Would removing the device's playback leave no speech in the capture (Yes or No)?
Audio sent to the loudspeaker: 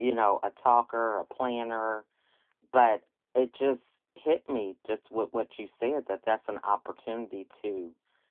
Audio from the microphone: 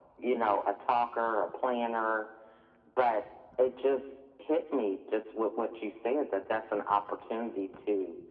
Yes